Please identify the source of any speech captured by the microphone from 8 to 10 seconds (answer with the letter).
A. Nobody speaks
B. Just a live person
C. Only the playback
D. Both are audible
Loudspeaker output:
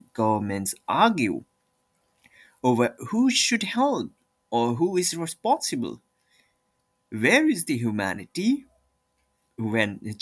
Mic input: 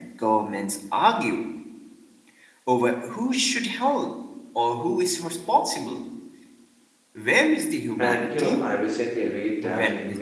D